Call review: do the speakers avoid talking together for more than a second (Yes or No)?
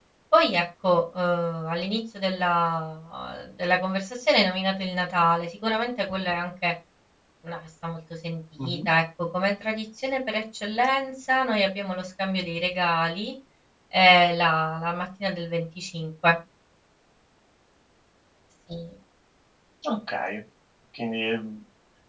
Yes